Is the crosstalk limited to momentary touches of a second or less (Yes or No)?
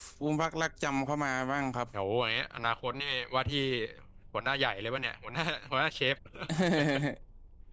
Yes